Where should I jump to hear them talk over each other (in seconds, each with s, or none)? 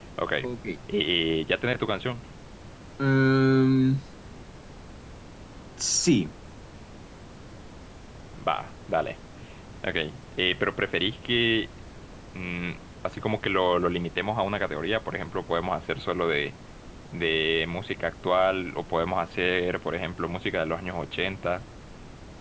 none